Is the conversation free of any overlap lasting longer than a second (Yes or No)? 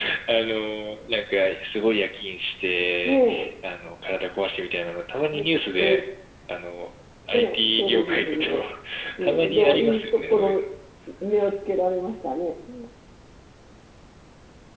No